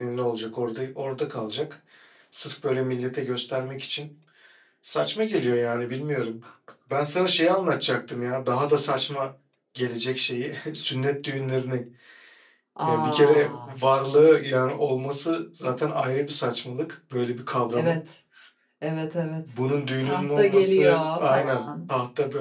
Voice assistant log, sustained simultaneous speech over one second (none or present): present